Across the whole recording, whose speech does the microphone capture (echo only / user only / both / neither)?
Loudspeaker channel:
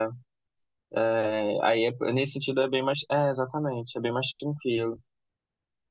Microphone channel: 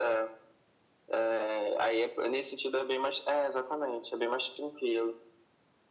echo only